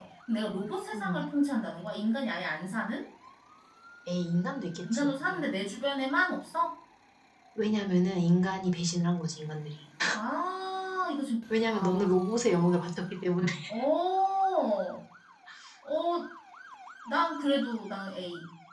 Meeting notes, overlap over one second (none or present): none